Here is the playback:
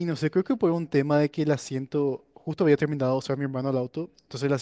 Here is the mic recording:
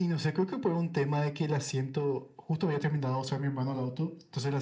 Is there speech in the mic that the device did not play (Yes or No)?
No